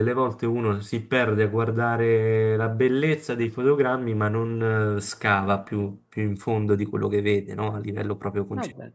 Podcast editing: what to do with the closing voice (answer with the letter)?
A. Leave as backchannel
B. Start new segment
B